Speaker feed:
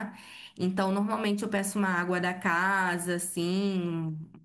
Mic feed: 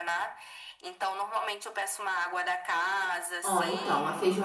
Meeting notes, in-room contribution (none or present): present